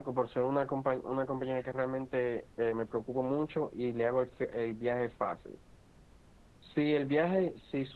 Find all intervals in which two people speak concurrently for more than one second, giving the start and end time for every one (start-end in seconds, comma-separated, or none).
none